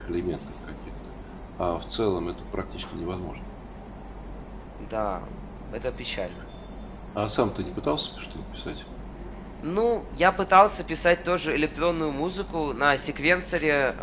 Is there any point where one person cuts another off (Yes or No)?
No